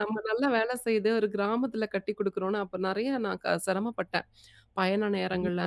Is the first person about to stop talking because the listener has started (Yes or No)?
No